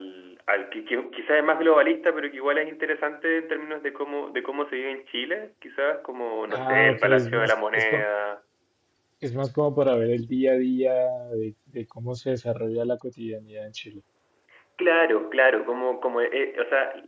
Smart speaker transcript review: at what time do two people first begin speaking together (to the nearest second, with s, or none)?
7 s